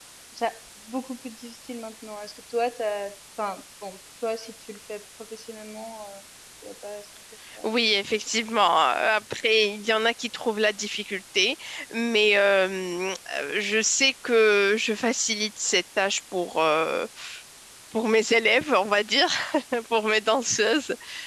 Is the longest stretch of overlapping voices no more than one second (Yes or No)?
Yes